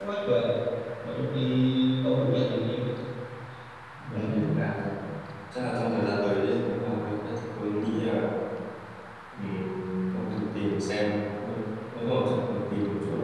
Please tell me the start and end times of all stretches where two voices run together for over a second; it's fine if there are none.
none

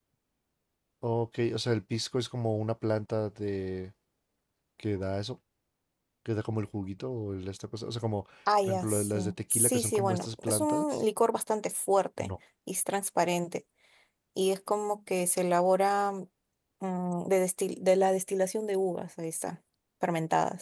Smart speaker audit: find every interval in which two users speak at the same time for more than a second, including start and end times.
8.6-10.8

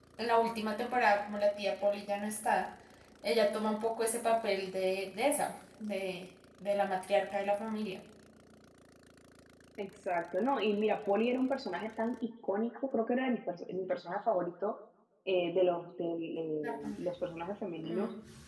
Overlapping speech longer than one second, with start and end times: none

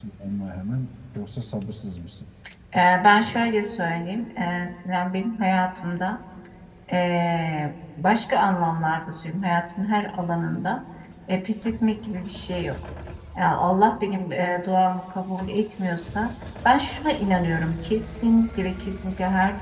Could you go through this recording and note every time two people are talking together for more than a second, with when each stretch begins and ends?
none

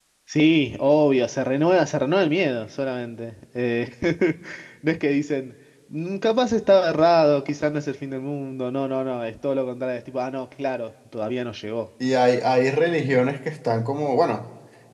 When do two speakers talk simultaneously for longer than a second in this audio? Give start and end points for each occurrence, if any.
none

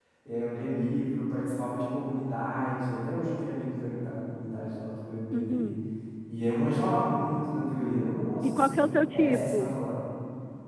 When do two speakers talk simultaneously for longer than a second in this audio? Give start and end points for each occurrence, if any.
8.4-9.7

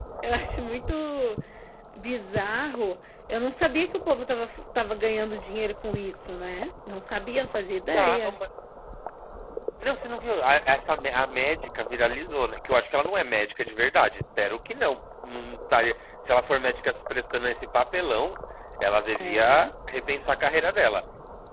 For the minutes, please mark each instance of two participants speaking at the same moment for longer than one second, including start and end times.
none

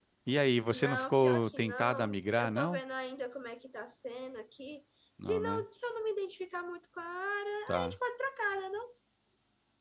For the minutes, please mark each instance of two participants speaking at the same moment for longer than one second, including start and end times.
0.7-2.8

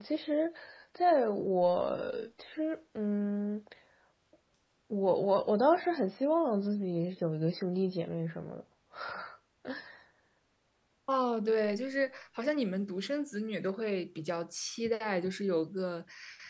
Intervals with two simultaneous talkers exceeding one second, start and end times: none

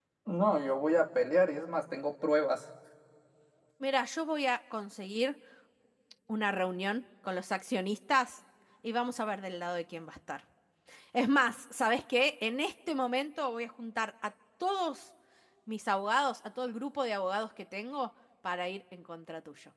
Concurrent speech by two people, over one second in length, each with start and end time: none

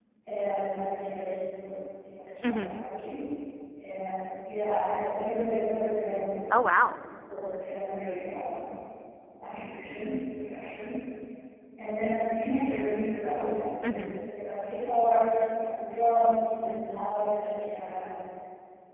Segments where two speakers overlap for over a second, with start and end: none

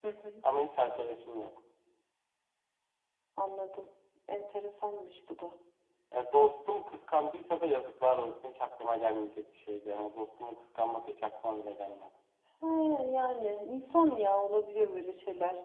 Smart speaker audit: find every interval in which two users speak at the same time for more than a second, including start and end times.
none

